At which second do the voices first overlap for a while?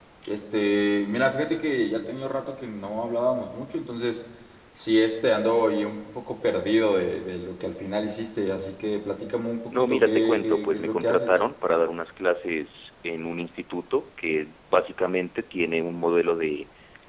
9.7 s

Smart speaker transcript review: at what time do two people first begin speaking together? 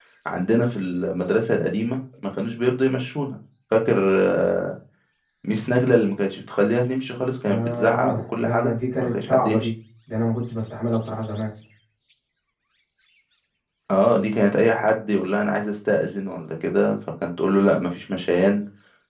7.5 s

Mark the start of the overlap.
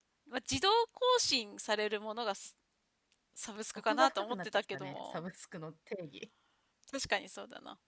3.8 s

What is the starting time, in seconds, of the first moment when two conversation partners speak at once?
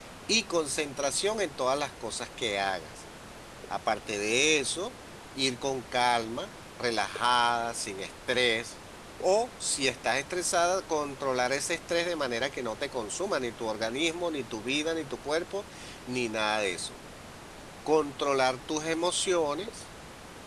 none

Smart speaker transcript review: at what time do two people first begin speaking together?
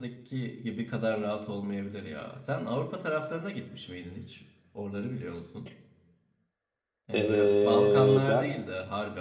7.1 s

